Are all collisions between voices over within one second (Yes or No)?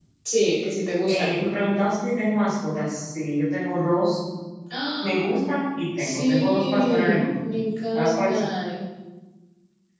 No